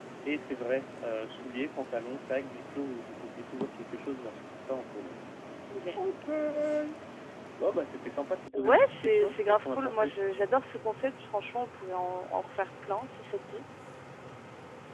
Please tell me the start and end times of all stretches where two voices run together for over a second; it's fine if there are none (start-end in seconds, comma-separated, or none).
8.5-10.1